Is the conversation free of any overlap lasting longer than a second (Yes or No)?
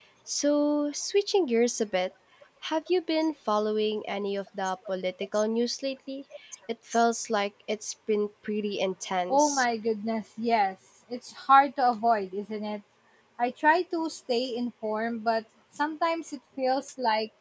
Yes